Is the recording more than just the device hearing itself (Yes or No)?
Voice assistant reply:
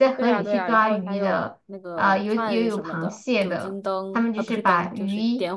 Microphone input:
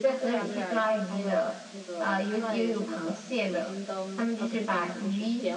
No